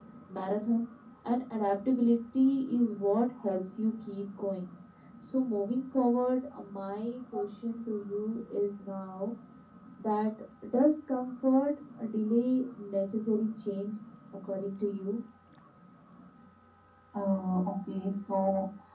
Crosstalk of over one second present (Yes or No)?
No